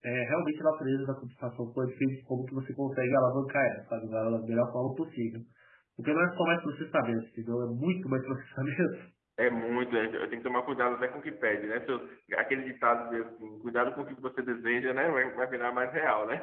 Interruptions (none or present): none